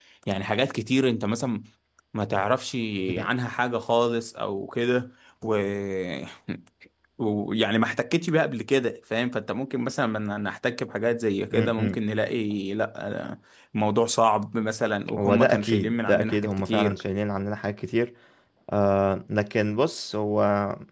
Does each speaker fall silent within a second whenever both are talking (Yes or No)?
No